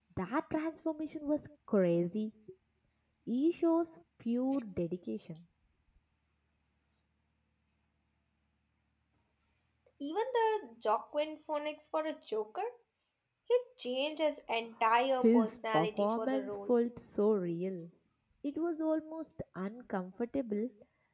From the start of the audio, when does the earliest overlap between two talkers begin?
15.2 s

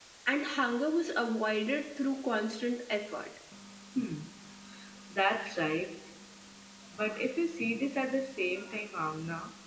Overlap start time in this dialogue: none

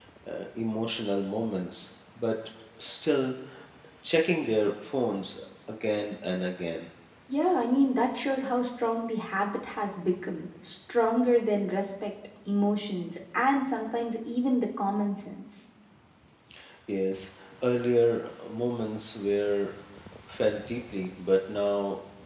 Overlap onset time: none

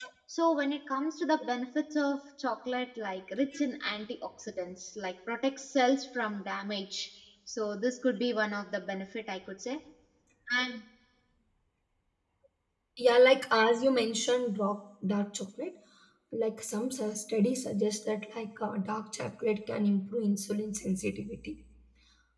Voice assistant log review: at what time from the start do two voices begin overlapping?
none

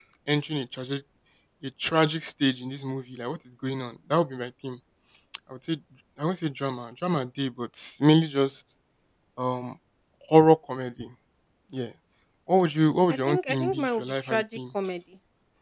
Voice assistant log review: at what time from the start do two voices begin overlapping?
13.1 s

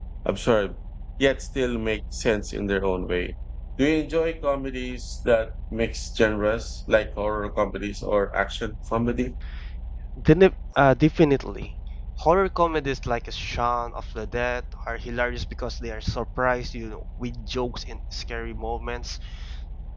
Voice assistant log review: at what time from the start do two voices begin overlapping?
none

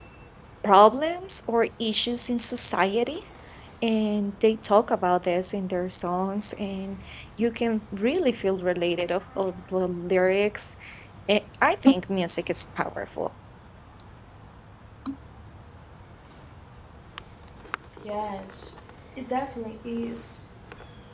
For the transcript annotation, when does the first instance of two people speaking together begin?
none

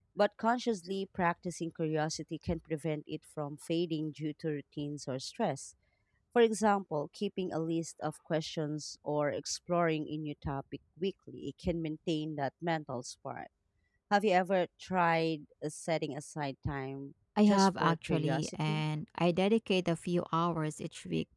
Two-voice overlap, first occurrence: 17.4 s

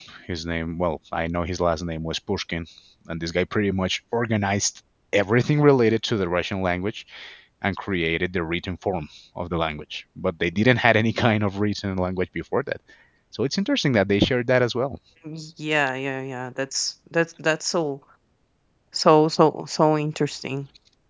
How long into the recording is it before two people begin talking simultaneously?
none

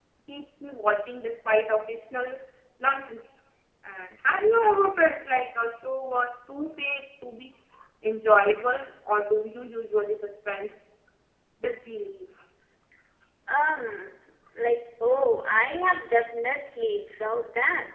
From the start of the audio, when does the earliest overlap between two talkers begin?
none

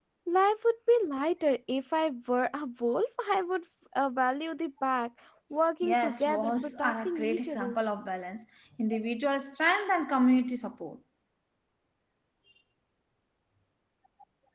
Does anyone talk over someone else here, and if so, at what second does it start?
5.8 s

